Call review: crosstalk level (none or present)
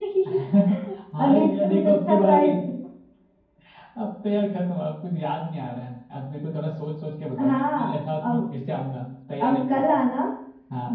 present